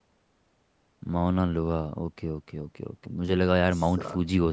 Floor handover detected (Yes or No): No